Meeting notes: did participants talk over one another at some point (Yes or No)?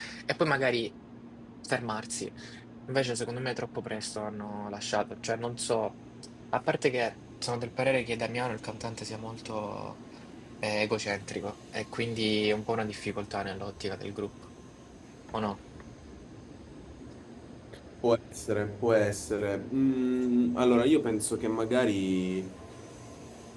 No